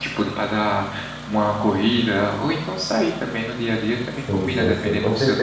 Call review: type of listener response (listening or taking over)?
taking over